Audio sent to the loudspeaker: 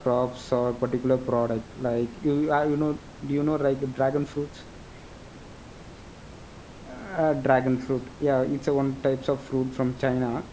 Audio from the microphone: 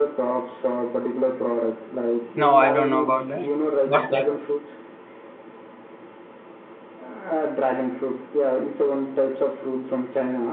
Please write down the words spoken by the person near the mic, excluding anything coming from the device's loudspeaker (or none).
No, I don't know about that. What's that?